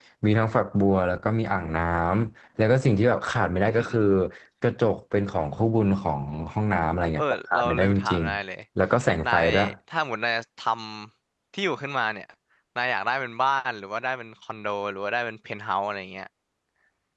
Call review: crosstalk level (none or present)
present